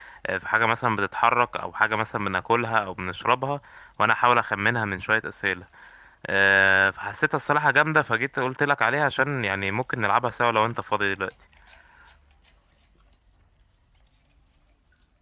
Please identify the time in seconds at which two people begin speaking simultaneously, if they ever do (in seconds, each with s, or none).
none